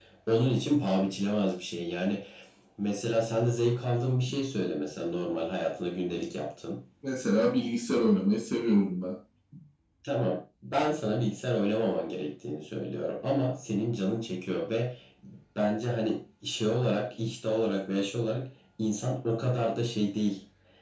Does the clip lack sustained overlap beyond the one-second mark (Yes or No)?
Yes